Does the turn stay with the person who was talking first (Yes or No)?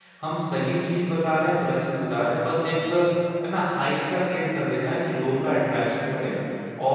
Yes